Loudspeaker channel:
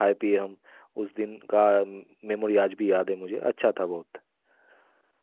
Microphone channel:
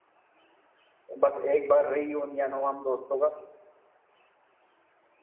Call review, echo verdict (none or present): none